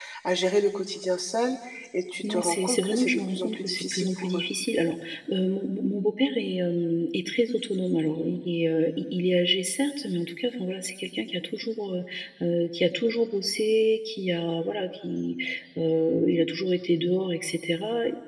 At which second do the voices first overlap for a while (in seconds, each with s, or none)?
2.3 s